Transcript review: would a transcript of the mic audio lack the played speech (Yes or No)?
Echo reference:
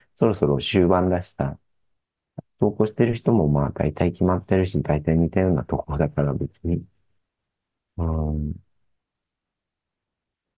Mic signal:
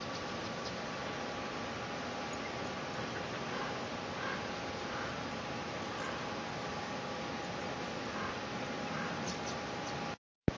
Yes